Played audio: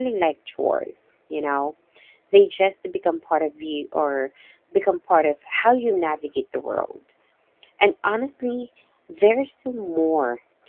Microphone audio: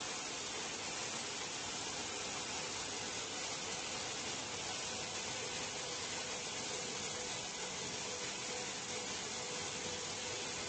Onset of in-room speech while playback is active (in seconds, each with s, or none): none